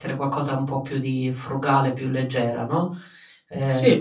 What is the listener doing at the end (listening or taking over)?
listening